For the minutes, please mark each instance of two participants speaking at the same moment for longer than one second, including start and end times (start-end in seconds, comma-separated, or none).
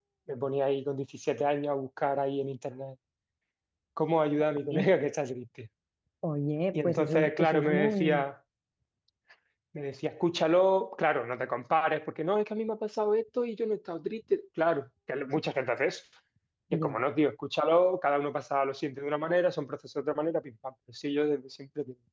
6.7-8.3